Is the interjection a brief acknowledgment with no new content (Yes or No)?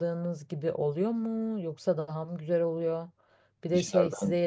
Yes